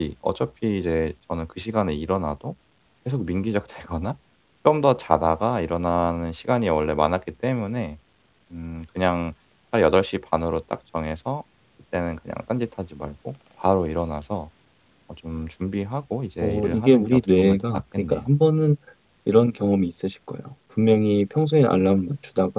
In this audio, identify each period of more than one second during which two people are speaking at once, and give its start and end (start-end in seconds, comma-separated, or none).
16.4-18.3